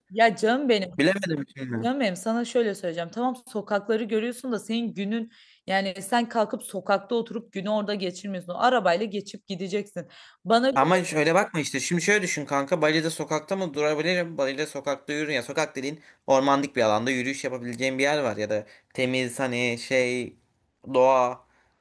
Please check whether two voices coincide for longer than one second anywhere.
No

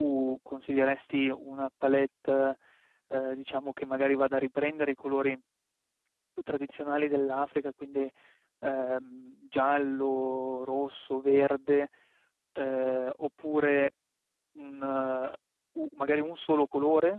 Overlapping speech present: No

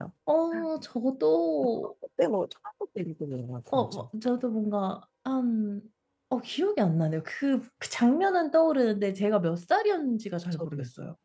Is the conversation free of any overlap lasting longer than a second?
Yes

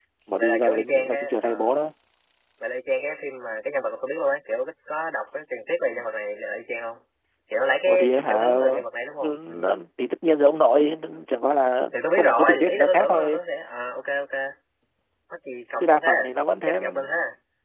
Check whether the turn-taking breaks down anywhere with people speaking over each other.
Yes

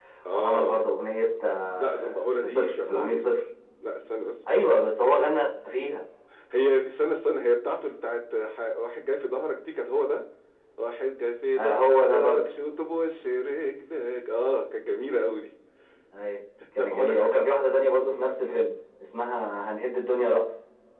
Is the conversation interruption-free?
No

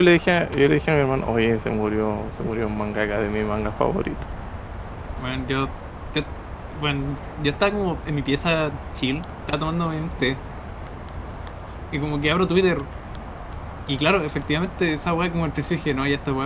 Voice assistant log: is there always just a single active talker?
Yes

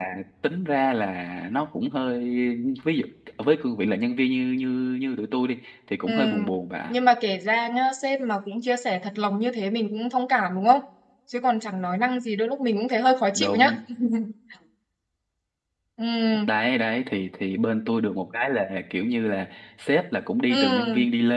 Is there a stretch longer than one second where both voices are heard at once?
No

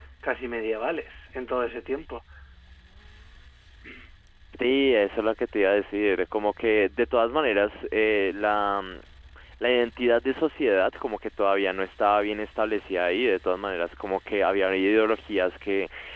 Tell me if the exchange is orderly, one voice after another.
Yes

